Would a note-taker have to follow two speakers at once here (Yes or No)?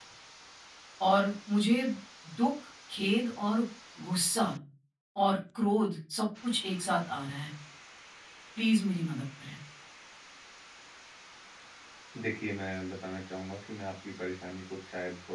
No